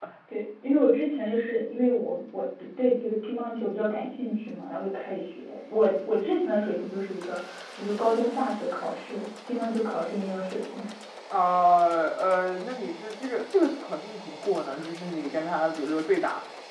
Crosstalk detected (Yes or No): No